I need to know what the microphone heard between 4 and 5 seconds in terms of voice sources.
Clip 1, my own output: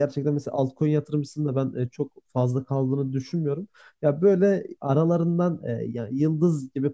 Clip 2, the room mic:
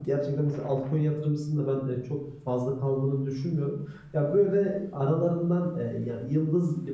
echo only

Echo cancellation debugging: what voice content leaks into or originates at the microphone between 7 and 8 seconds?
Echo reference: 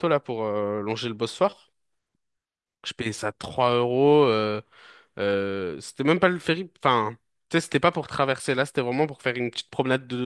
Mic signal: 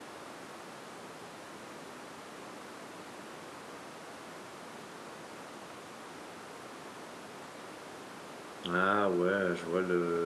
neither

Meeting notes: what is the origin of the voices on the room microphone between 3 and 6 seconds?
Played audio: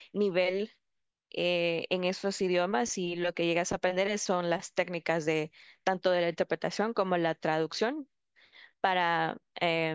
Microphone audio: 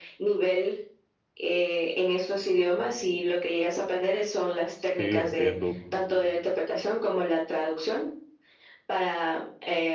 both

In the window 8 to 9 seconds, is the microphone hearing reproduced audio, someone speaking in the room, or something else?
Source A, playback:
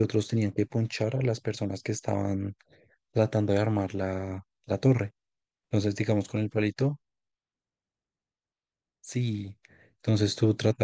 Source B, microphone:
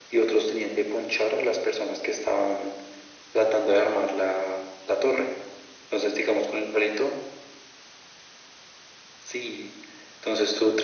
neither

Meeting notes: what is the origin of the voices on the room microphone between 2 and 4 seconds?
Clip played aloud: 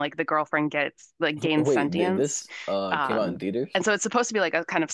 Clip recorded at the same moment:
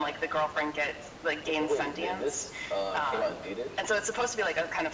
echo only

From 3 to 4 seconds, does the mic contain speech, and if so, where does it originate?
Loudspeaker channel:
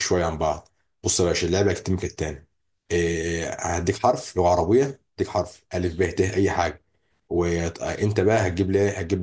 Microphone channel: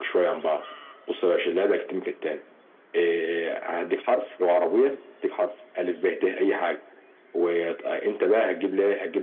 echo only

